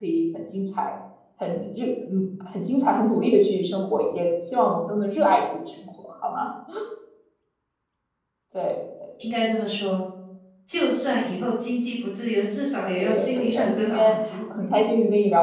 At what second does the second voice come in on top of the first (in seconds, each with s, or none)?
13.0 s